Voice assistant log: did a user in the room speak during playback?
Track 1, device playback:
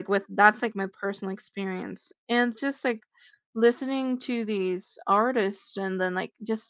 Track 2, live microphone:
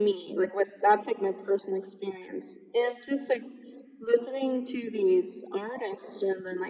No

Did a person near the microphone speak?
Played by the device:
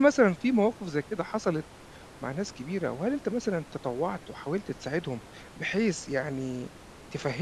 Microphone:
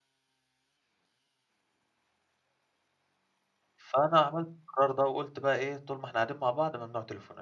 Yes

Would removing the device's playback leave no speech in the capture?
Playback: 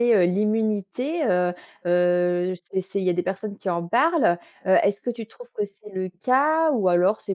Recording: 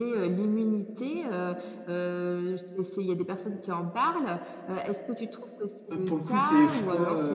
No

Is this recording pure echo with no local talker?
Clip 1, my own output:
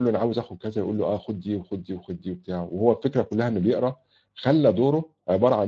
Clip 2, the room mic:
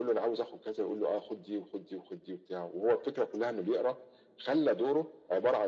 Yes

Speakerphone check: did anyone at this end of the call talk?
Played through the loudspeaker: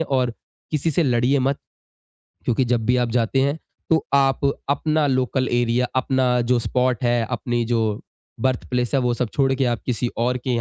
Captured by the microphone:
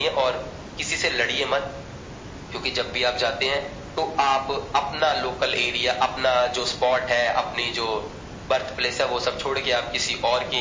No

